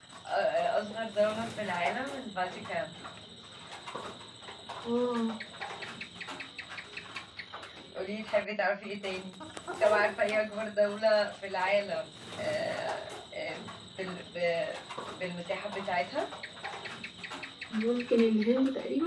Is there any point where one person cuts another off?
No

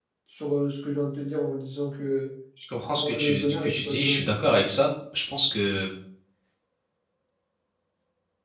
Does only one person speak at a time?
No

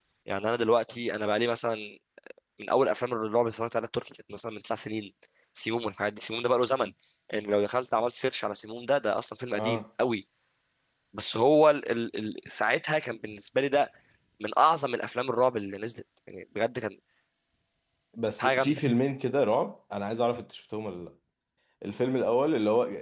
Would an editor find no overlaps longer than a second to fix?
Yes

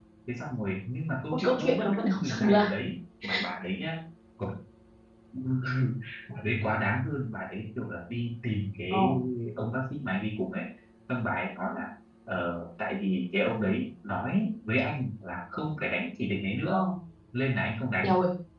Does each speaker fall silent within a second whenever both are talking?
No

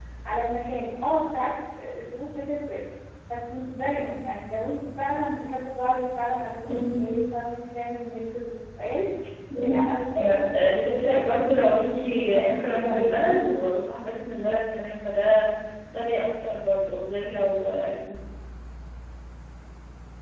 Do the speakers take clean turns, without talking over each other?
No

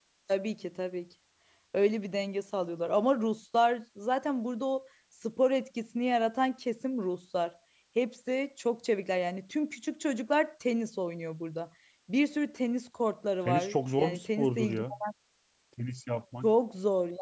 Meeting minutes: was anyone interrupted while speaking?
Yes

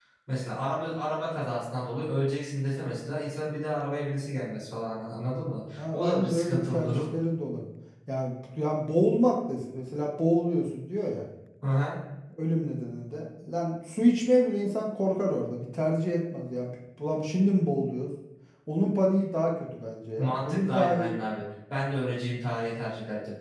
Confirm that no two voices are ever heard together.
No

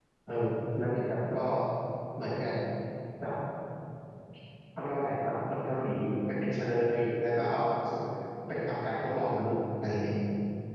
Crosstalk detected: No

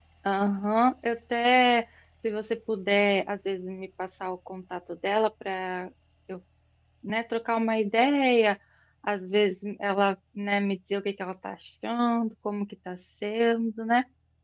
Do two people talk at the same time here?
No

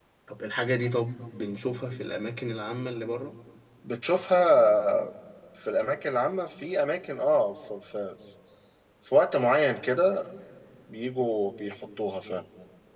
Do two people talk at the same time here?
No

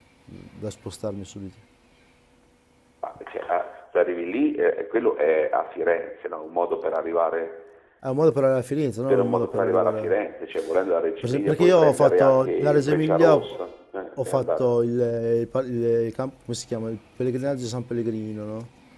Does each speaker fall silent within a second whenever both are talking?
No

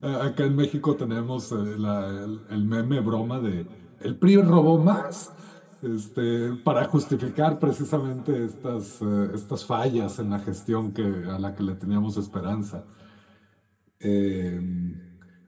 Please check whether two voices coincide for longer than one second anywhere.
No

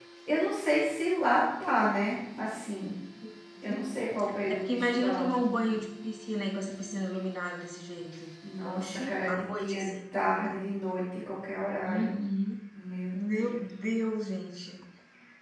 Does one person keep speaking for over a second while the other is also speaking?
Yes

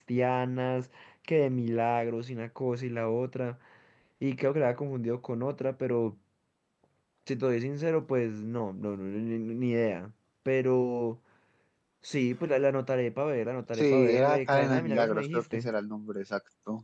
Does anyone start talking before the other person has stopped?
Yes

